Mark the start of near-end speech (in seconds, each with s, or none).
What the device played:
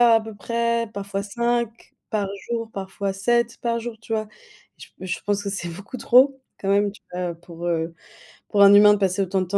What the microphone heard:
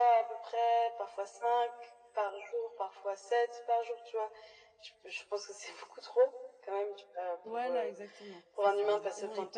7.4 s